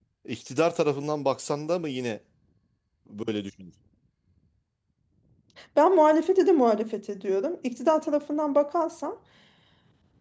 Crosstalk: none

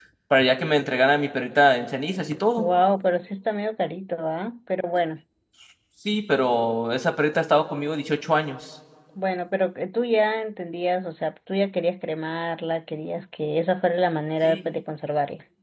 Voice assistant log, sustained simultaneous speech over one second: none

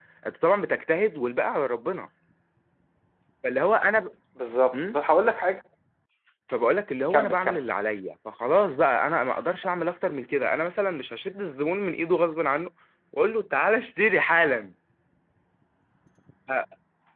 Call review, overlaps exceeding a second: none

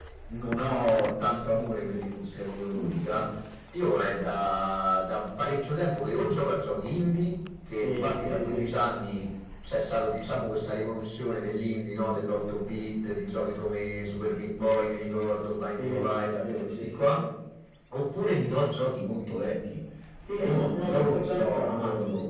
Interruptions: present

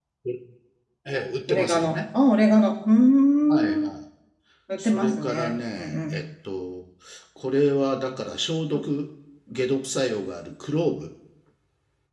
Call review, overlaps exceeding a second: present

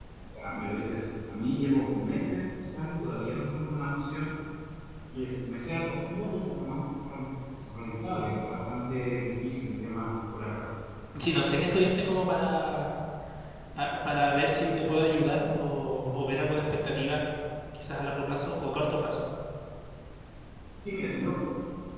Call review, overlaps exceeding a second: none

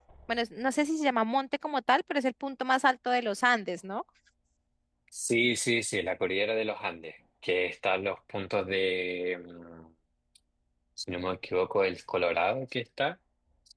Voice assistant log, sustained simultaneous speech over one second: none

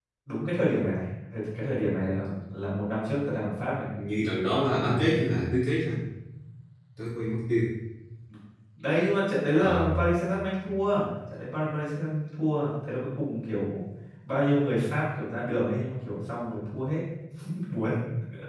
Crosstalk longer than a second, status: none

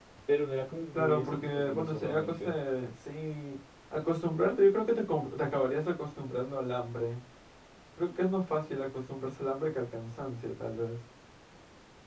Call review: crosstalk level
present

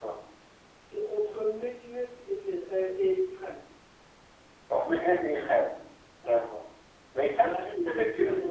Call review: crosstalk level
present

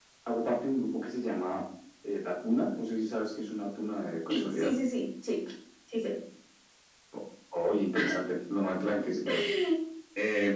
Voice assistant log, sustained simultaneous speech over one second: none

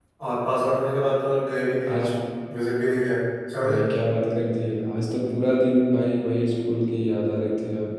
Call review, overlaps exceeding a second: none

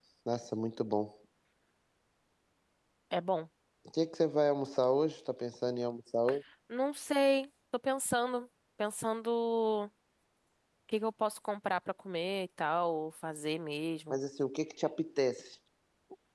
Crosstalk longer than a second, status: none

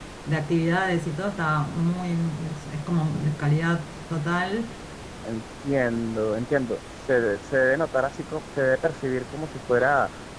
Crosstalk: none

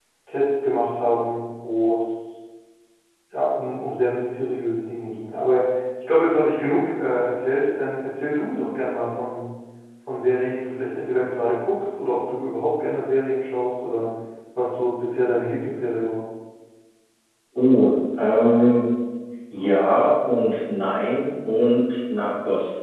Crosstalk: none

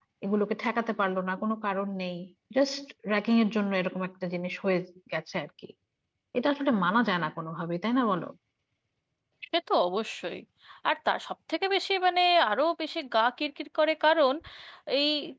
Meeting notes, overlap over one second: none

